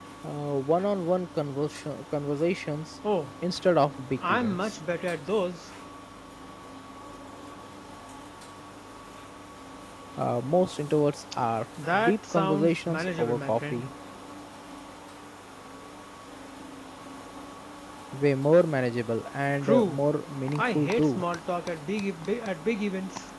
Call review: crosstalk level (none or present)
present